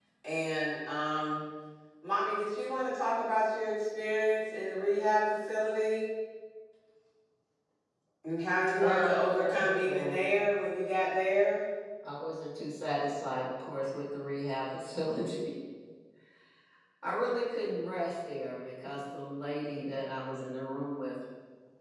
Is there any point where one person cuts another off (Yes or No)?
Yes